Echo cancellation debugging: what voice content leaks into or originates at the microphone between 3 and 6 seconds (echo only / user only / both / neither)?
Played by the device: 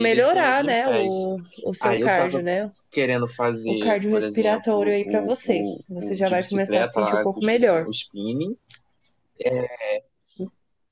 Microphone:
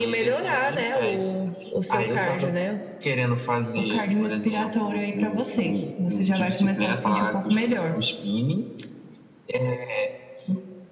echo only